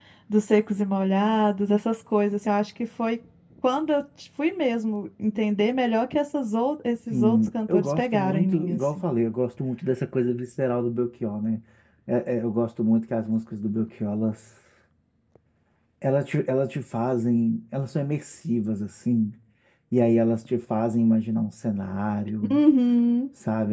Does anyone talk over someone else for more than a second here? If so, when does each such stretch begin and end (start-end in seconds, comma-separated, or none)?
7.1-9.0